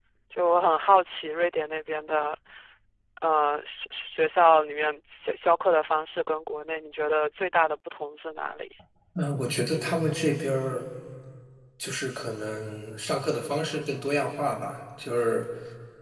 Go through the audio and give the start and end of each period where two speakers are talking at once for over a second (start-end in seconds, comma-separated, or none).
none